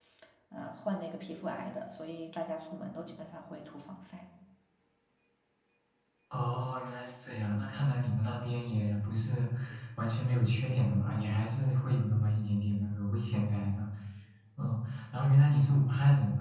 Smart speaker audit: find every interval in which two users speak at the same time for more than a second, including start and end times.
none

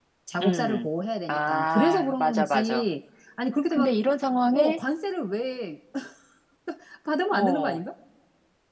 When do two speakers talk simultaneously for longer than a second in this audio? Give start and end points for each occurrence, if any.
1.3-2.9

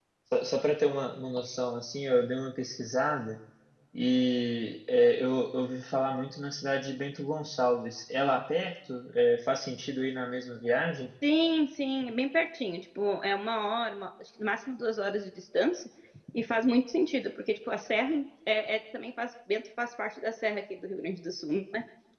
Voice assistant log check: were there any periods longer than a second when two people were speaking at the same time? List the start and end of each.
none

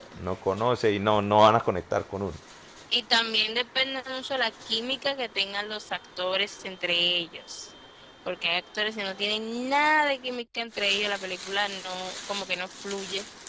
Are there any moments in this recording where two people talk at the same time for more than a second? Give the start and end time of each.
none

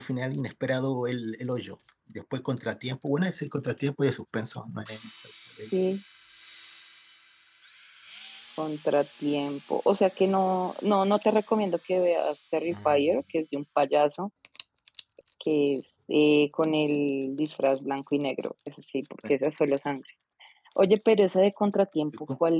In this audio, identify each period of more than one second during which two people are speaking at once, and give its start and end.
none

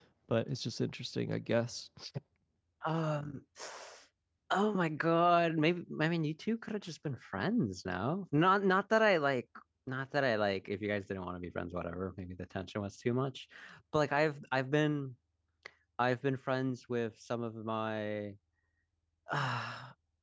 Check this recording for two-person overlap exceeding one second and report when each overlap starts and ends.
none

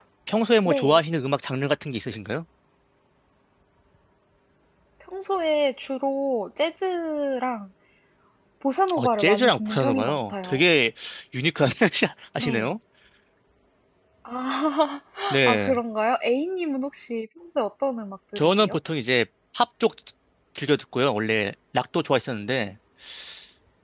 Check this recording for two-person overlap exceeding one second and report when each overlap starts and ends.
9.0-10.6

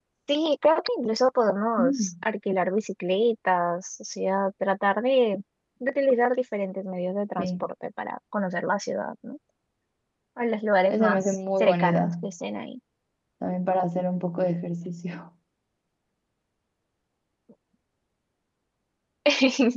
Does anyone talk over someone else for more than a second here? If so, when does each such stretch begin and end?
10.9-12.1

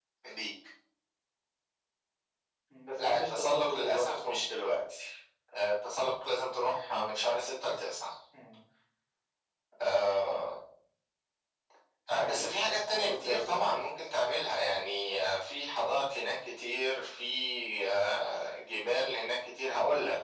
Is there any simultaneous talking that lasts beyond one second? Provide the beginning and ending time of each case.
3.0-4.5, 12.2-13.8

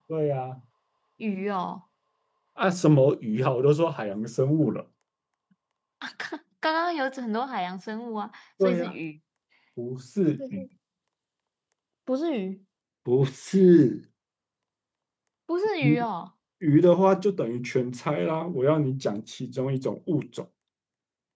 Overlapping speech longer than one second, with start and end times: none

